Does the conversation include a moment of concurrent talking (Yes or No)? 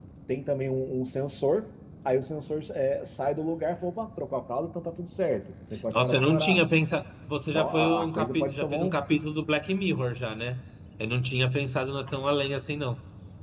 Yes